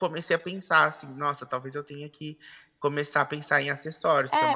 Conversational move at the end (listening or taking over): taking over